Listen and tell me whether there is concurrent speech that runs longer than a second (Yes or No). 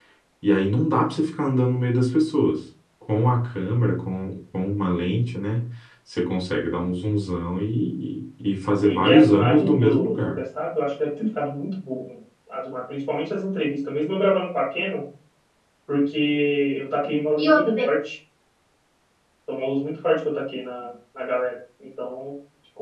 Yes